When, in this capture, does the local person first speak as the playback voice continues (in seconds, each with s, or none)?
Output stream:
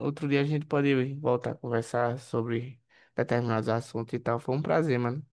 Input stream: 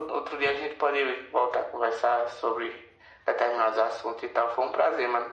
none